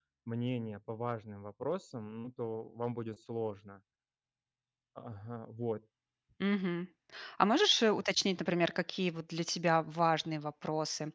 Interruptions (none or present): none